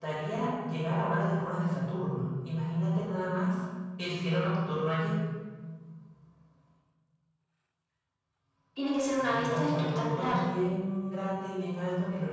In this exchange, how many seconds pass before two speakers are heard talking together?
9.1 s

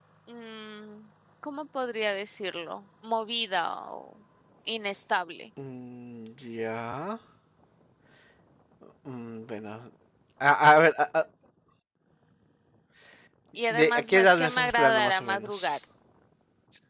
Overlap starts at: 13.7 s

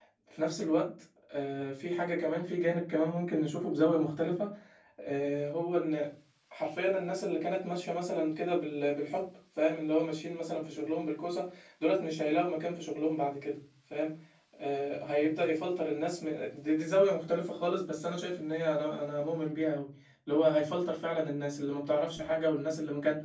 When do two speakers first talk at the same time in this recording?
none

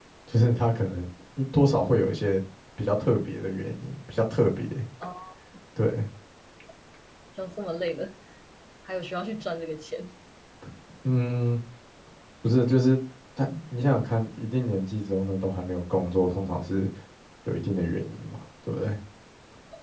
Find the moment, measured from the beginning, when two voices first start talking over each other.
none

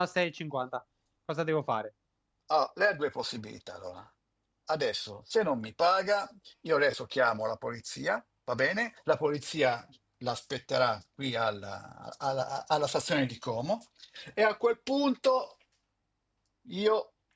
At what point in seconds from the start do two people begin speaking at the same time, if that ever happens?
none

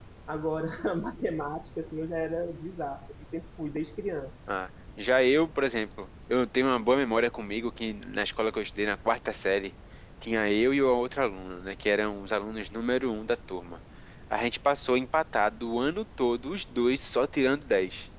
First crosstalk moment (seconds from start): none

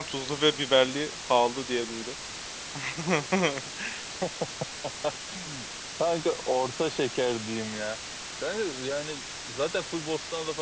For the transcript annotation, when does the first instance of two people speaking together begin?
none

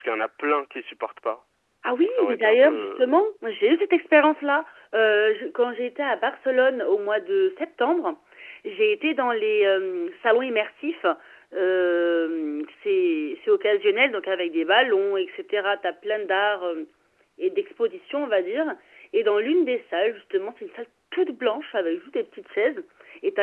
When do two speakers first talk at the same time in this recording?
2.0 s

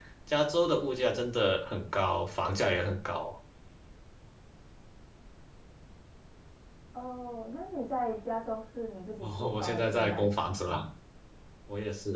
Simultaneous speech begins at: 9.2 s

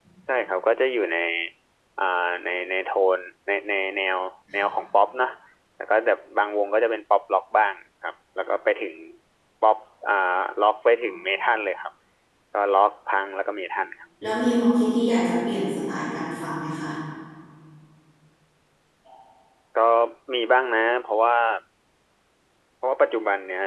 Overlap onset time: none

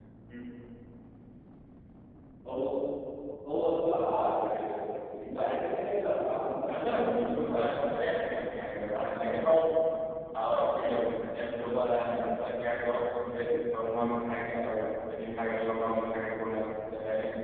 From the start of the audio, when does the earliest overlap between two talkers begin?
6.7 s

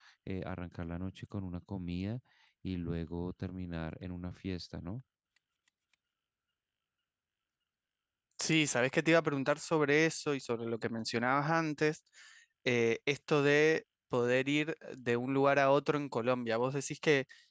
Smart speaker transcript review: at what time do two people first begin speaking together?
none

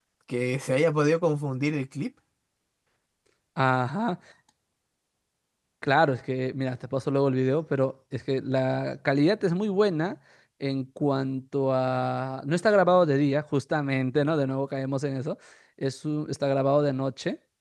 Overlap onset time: none

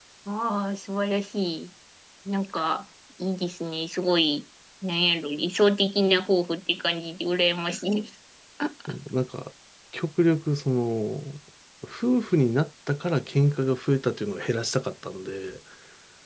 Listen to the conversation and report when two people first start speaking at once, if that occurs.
none

